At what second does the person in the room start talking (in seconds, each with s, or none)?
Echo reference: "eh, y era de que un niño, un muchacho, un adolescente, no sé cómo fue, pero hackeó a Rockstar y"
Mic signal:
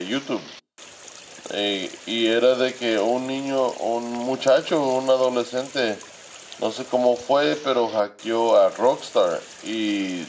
none